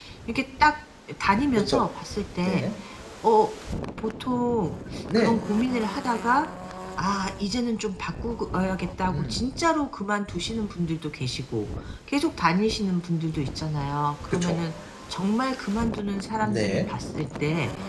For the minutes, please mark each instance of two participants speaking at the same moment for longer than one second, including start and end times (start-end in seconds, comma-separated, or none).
none